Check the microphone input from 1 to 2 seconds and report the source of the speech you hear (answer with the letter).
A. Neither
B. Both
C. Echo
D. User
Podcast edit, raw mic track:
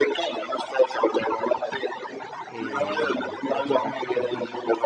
C